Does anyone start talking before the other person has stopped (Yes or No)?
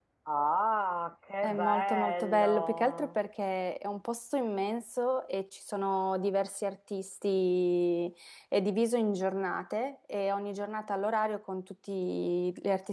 Yes